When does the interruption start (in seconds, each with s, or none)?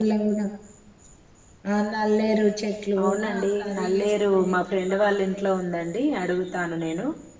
3.0 s